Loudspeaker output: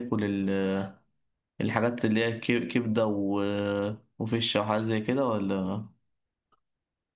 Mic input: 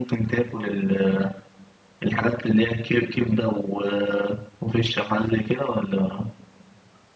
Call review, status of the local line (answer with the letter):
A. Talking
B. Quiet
B